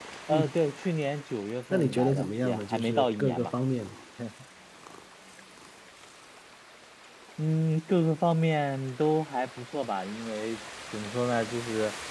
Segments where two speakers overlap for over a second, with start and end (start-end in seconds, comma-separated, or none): 1.7-3.5